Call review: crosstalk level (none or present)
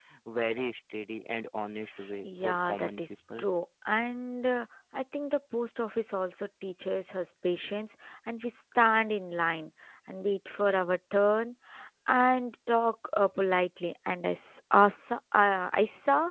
present